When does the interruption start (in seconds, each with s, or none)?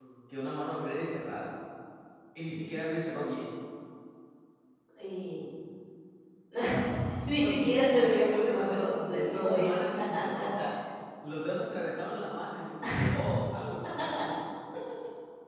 7.3 s